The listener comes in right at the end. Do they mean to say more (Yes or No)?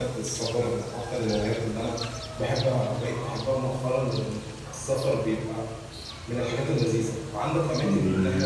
Yes